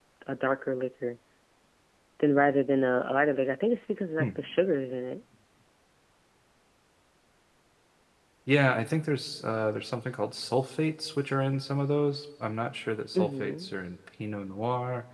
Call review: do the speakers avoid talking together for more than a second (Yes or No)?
Yes